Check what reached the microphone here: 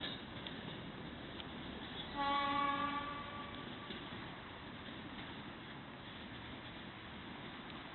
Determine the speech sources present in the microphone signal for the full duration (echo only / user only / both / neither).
neither